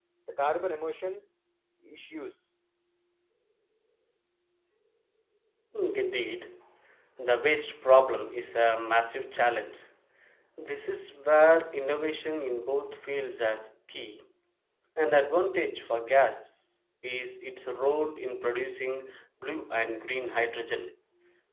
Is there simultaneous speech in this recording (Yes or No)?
No